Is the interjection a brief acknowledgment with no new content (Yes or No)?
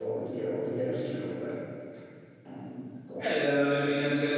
No